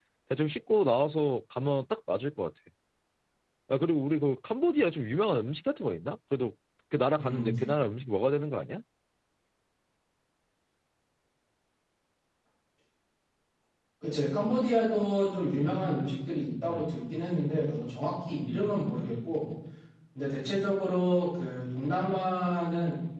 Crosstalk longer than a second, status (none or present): none